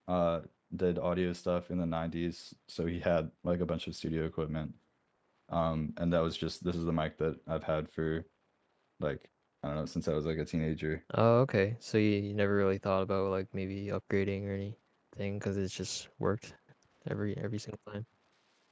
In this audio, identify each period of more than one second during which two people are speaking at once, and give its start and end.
none

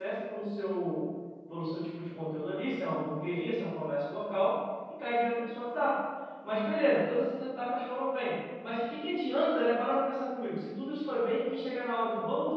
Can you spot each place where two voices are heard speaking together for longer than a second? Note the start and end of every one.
none

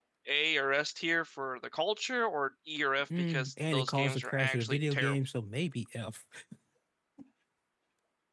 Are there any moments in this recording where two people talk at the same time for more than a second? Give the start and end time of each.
3.2-5.2

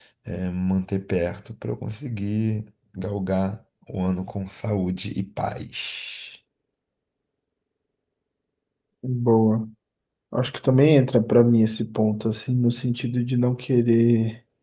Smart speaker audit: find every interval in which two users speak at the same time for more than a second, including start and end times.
none

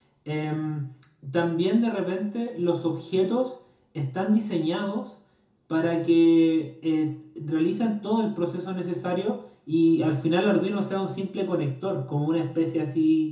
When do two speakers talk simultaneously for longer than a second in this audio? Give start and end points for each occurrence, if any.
none

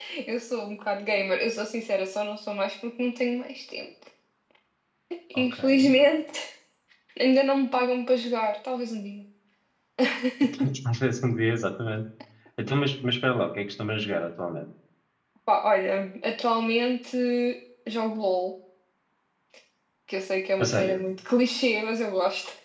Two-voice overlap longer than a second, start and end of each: none

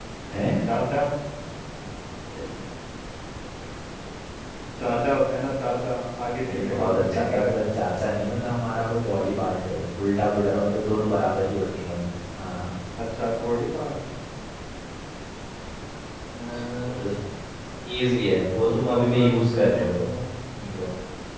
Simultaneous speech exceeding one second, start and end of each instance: 6.5-7.8, 18.7-19.9

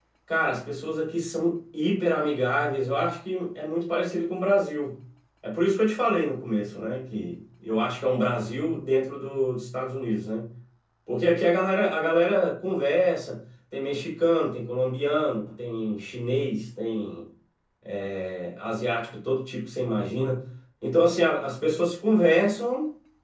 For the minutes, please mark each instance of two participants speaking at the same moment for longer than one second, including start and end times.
none

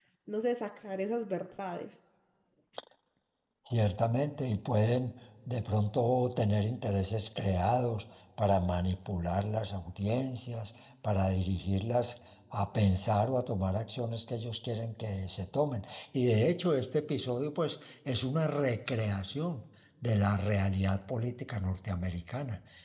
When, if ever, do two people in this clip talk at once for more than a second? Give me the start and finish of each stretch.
none

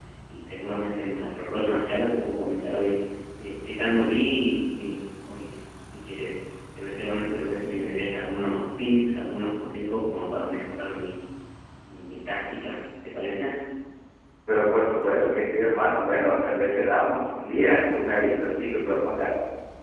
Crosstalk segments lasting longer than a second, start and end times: none

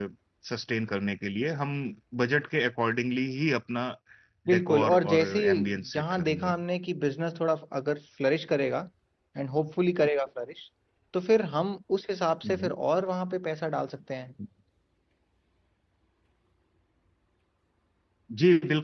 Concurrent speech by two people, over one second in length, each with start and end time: 4.5-6.5

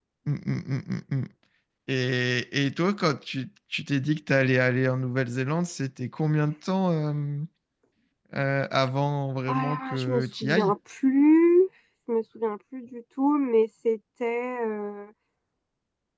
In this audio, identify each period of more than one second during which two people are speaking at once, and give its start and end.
9.5-10.7

